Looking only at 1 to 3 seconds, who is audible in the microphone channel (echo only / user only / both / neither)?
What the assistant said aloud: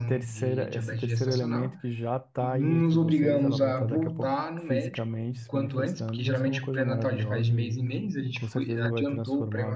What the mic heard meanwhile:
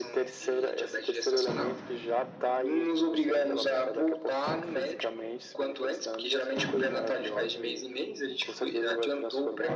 echo only